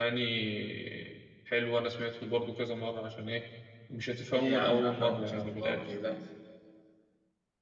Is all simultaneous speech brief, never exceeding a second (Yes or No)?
No